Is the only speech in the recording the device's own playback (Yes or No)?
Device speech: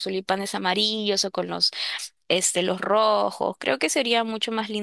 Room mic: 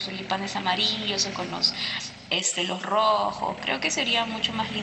Yes